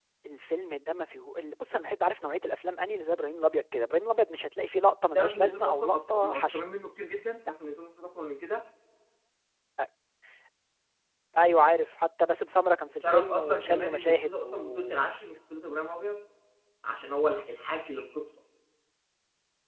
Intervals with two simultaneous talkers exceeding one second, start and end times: 5.2-6.6, 13.0-15.0

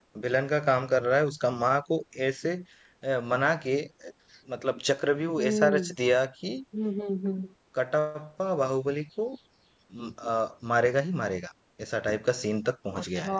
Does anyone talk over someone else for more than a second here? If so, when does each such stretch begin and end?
none

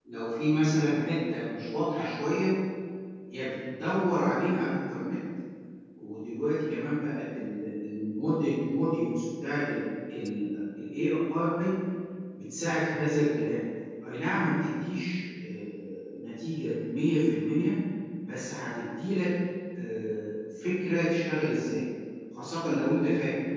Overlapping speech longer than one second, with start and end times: none

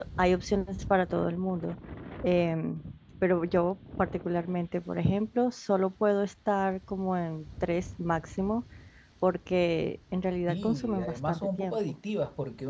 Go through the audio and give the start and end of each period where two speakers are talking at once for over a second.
10.5-11.9

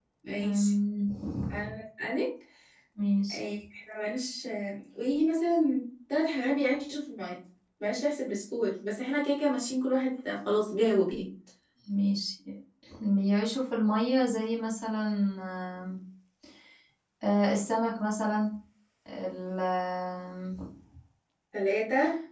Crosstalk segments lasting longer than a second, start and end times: none

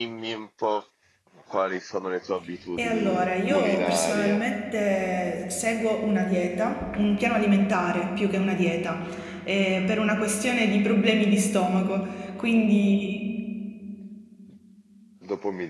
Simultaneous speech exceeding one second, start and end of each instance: 2.7-4.5

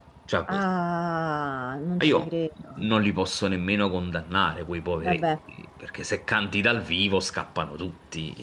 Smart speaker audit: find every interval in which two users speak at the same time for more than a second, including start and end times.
none

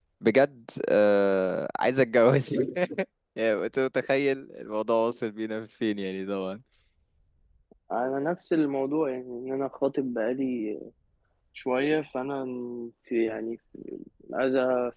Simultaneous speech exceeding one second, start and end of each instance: none

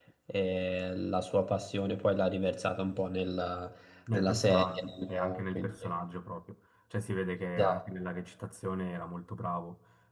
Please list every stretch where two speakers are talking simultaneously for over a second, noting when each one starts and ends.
4.1-5.7

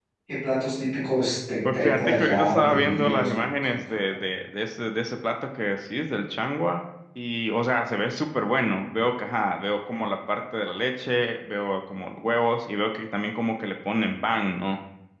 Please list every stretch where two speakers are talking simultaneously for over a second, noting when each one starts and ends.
1.7-4.2

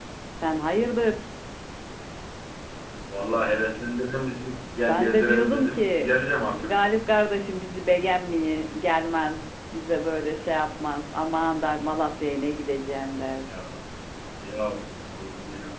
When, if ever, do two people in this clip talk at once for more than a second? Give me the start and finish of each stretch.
4.9-6.1

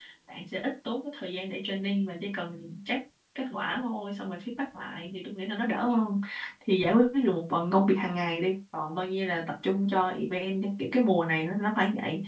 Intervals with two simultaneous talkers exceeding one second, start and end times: none

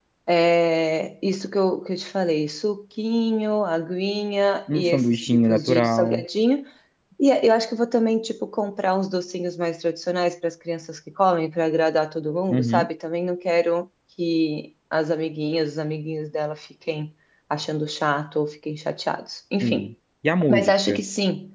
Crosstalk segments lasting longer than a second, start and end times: 4.7-6.2

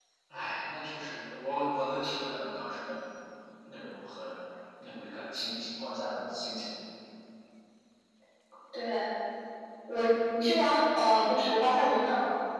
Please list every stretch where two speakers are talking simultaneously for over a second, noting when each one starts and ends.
none

